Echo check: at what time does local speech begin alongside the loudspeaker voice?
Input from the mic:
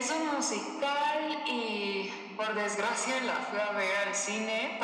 none

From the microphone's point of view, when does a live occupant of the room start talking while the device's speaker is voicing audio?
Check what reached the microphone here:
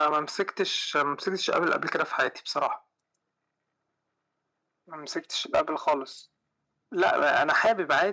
none

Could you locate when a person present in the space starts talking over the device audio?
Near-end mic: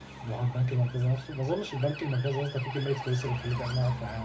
none

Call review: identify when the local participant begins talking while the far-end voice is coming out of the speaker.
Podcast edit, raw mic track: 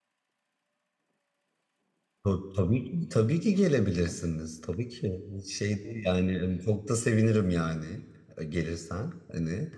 2 s

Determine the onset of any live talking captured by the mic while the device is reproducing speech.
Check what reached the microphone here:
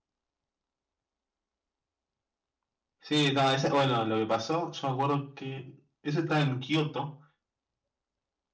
3 s

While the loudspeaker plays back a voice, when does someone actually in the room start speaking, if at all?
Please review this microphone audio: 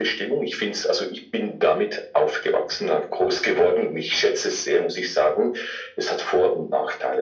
none

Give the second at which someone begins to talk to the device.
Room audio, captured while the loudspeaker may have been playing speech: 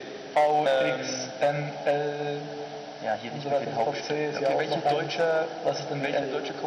none

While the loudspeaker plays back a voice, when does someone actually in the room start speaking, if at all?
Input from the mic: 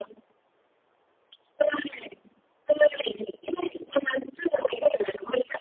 none

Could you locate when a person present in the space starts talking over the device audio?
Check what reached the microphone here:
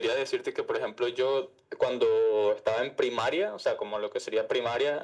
none

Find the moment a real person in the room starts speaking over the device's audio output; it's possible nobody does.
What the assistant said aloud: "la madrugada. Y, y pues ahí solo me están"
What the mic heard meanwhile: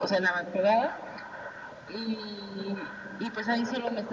none

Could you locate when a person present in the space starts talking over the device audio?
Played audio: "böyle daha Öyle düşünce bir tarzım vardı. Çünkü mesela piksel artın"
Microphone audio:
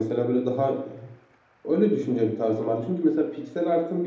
none

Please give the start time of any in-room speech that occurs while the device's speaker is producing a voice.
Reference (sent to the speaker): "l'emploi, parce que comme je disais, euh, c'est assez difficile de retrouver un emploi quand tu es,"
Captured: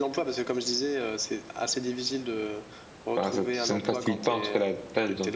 3 s

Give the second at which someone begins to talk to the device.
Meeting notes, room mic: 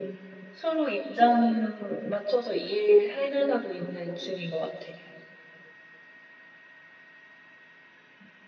none

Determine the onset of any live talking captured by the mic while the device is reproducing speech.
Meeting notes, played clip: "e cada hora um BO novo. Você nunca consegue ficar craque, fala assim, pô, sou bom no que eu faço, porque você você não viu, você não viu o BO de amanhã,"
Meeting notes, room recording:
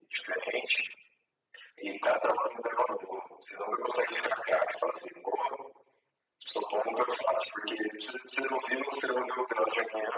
none

